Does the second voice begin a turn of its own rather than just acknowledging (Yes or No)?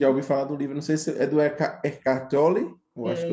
Yes